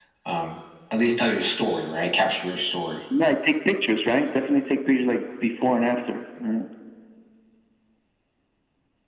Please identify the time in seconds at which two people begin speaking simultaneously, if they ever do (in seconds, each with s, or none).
none